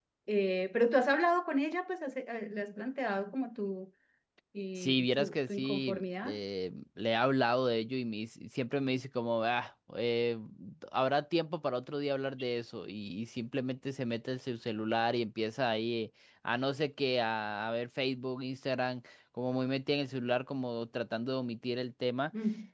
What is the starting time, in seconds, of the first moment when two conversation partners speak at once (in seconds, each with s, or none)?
4.8 s